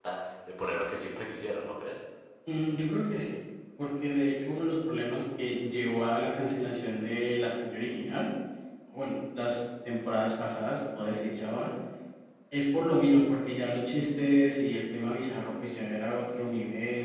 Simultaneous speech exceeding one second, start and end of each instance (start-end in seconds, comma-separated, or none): none